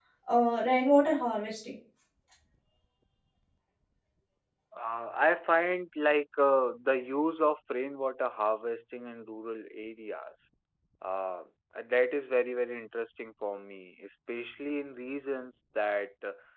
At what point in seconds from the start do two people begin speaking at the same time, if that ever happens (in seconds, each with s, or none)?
none